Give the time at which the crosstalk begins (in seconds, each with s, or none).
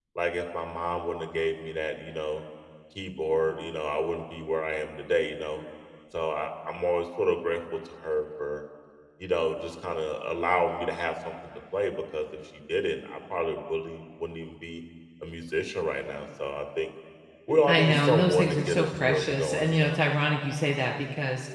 17.7 s